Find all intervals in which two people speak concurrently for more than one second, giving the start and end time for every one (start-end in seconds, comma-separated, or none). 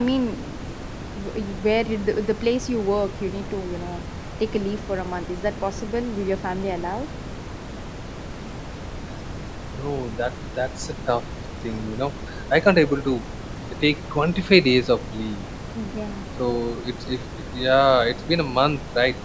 none